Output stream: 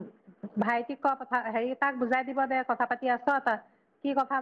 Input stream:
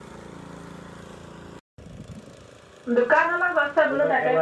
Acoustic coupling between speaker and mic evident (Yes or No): No